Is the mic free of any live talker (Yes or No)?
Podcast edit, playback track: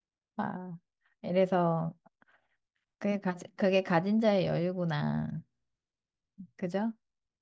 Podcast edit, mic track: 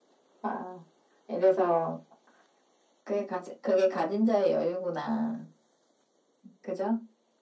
Yes